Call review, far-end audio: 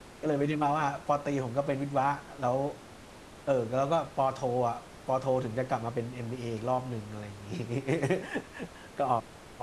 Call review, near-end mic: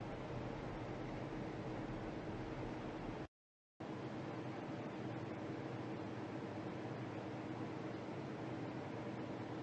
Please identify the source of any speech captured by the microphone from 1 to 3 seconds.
neither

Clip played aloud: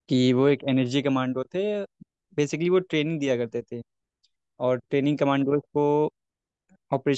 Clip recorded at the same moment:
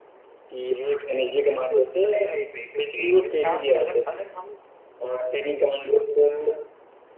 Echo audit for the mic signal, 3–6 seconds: both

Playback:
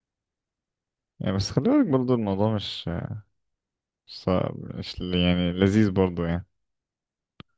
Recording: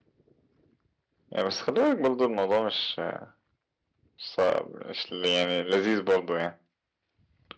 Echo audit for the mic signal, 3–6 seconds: echo only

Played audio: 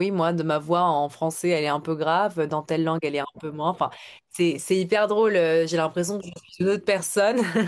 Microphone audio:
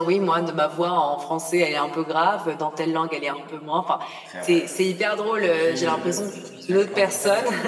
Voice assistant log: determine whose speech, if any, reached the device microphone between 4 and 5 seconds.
both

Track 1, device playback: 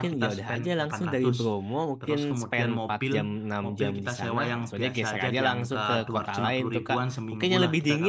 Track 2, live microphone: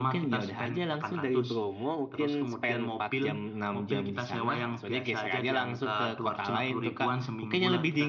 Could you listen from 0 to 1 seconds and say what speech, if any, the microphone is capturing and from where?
echo only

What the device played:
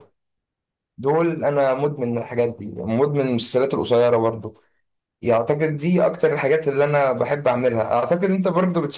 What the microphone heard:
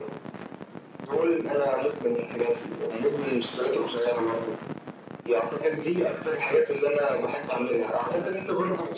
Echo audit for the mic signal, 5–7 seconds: echo only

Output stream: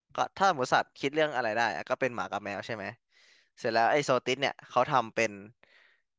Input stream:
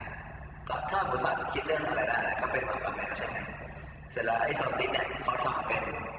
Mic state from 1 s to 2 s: echo only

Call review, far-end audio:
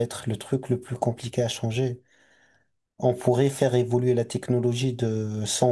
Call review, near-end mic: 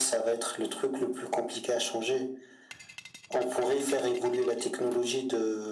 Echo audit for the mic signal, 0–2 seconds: echo only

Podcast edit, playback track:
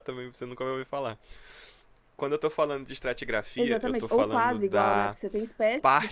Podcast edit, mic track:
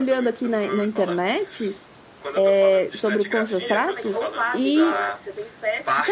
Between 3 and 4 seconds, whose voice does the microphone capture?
both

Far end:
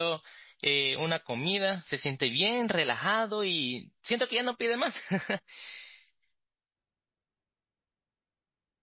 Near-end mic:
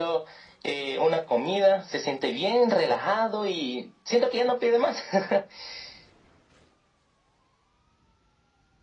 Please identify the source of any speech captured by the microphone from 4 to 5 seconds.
echo only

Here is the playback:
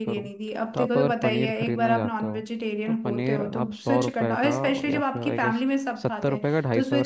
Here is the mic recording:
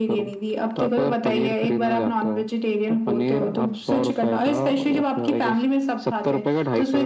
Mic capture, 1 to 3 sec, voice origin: echo only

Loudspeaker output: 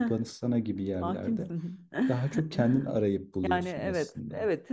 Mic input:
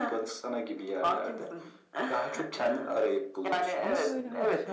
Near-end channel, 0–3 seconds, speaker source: echo only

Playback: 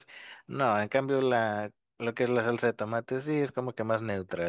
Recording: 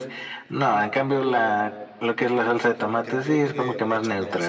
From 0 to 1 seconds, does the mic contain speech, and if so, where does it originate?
echo only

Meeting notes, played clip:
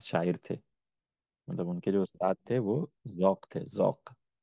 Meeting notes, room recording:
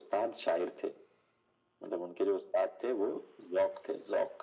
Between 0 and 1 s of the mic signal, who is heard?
echo only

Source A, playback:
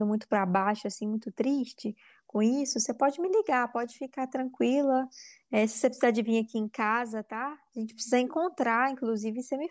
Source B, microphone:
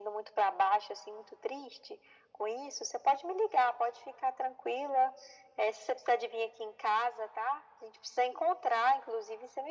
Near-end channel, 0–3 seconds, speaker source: echo only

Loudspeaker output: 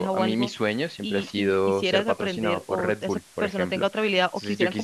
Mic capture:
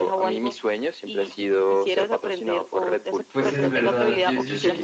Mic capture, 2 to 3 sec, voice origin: echo only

